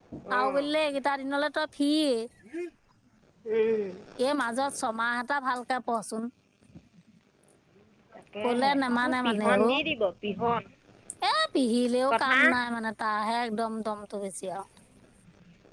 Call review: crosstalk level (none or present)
present